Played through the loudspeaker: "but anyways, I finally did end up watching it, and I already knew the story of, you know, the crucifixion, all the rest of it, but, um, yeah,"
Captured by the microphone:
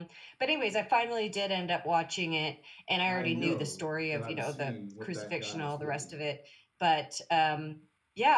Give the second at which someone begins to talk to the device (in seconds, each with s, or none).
3.0 s